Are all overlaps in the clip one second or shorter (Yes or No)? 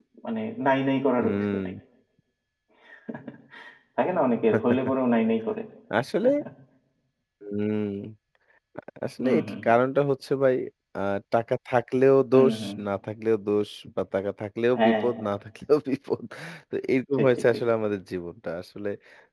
Yes